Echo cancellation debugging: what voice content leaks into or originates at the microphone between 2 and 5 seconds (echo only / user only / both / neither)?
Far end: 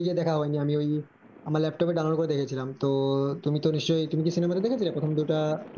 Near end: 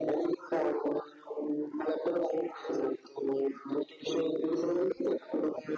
echo only